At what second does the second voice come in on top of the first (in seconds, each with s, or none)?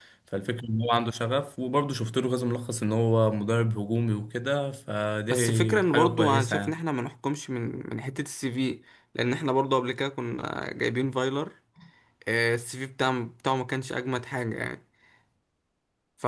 5.3 s